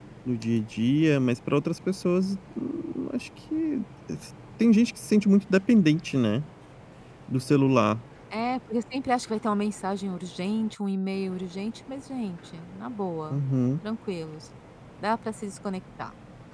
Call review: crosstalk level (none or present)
none